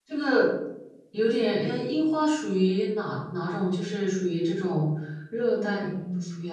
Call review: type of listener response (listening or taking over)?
taking over